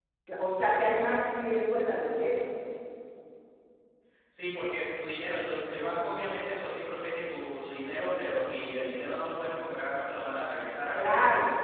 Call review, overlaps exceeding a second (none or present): none